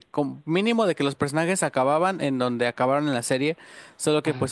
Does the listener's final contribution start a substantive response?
No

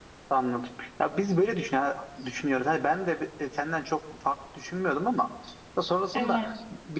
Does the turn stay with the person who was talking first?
Yes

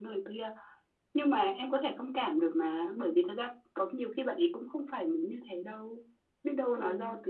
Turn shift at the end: No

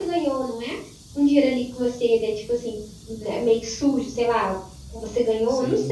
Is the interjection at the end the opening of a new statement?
No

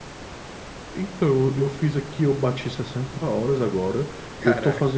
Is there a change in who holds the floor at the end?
No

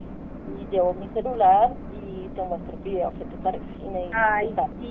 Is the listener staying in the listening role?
No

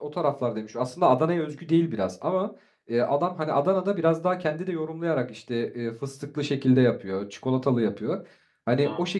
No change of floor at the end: Yes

